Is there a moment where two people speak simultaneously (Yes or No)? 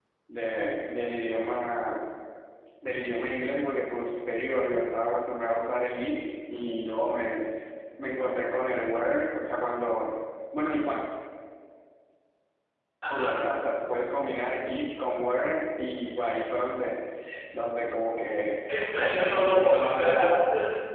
Yes